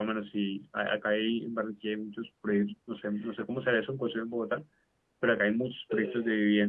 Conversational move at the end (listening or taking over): listening